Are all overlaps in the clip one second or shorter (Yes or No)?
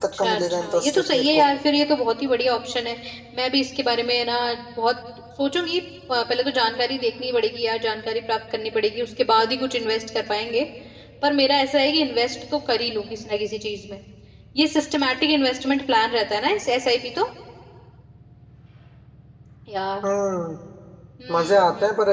No